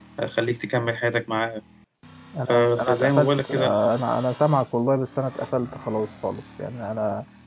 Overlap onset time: 2 s

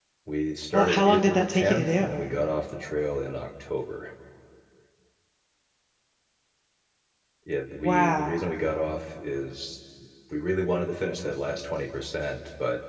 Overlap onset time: 1 s

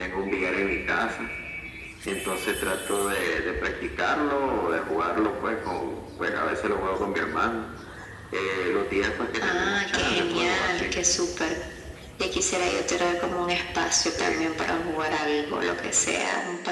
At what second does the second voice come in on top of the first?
9 s

